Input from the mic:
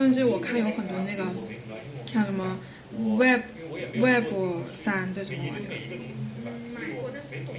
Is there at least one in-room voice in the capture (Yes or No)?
Yes